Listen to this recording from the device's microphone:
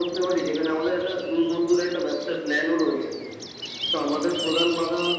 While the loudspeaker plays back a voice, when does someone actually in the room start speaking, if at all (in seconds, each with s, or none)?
none